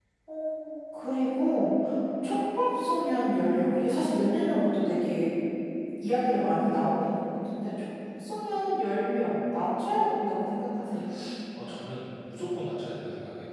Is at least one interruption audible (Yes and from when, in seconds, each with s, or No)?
No